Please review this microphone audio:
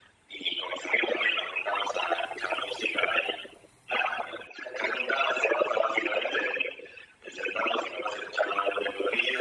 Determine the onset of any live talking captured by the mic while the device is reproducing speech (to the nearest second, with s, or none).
none